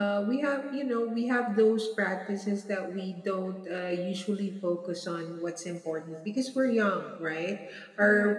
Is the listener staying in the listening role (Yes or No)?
Yes